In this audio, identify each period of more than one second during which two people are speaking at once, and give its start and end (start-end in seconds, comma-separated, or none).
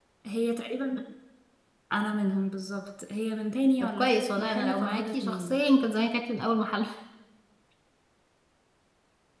3.8-5.6